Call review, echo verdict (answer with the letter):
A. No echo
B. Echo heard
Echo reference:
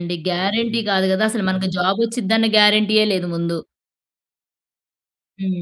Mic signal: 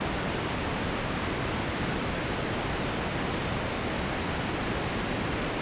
A